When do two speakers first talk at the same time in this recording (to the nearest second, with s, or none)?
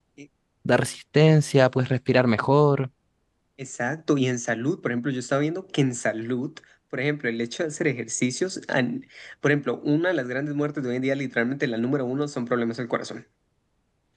none